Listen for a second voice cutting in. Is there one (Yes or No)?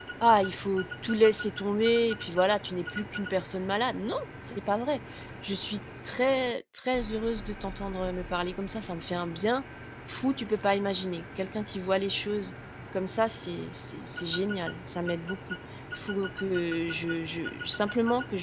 No